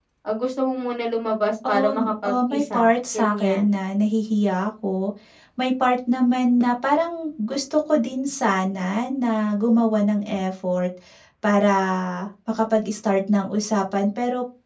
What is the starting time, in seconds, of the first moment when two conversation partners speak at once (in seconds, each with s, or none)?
1.6 s